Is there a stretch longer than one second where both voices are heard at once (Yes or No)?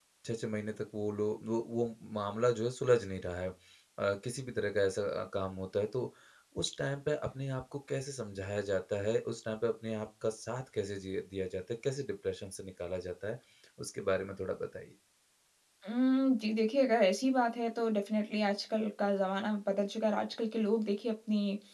No